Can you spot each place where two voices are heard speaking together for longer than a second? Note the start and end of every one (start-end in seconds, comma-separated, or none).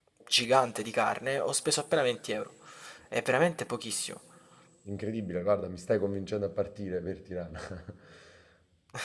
none